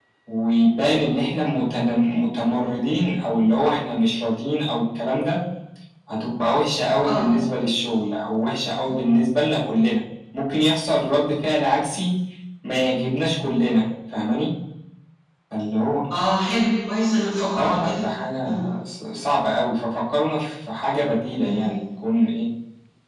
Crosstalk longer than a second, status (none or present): none